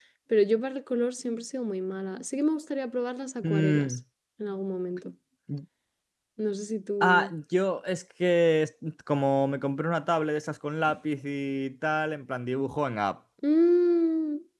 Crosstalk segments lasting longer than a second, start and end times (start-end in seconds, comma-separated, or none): none